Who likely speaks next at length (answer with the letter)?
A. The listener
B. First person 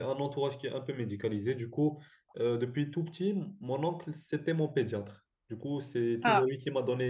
B